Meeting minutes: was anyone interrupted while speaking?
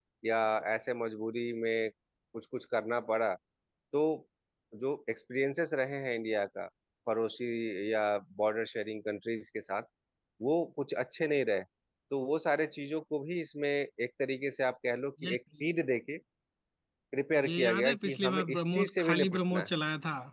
Yes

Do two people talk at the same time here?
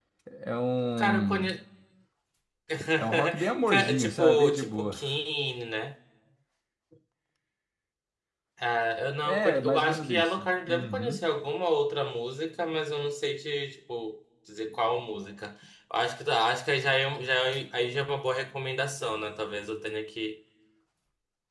Yes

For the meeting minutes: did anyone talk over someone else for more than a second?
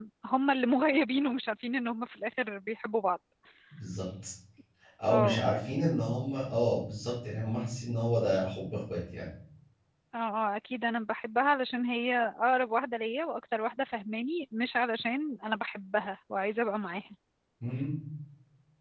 No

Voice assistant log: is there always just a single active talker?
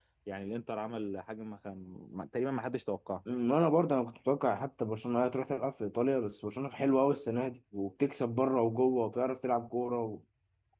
Yes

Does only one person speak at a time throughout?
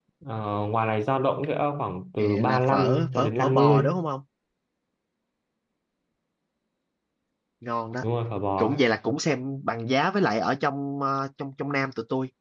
No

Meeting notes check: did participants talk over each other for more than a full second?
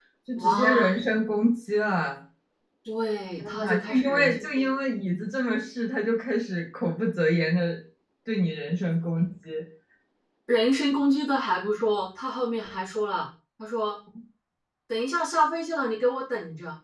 Yes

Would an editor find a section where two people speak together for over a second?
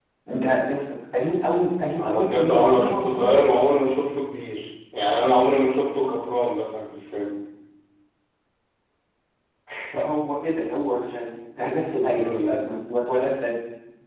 Yes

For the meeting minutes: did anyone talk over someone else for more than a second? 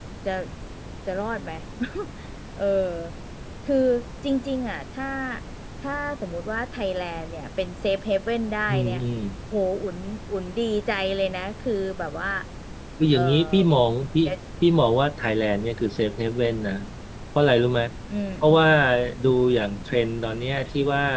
No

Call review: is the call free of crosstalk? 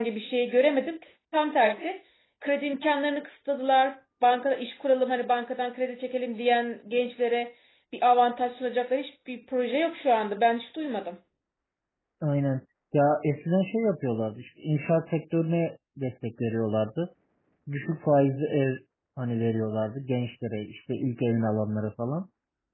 Yes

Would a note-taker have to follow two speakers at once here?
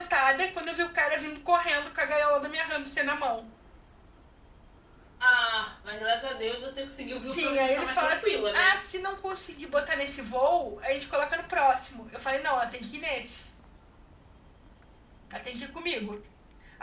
Yes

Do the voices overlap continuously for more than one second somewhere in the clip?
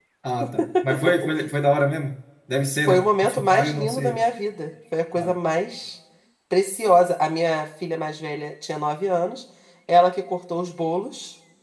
Yes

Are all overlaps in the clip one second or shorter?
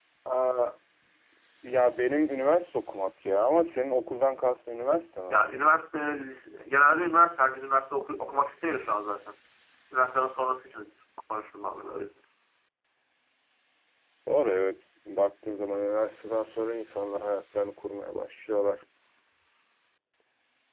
Yes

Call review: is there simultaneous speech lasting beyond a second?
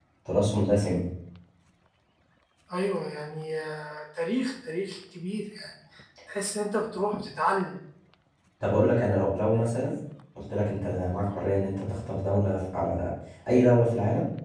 No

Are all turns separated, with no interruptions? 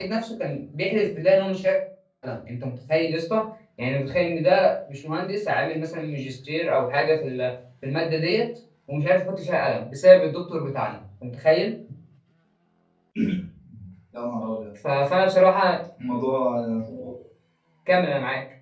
Yes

